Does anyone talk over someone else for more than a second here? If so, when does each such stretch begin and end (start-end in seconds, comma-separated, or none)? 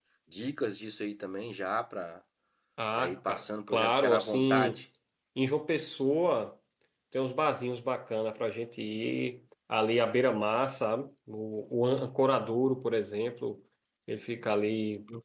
2.9-4.8